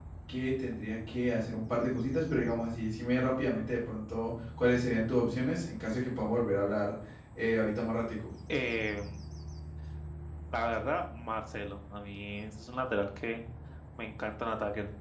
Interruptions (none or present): none